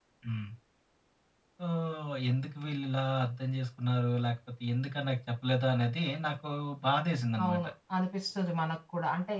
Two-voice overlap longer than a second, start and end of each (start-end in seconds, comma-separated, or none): none